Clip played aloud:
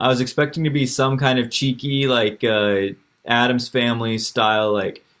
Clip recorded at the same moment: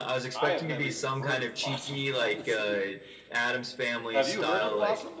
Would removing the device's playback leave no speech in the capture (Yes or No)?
No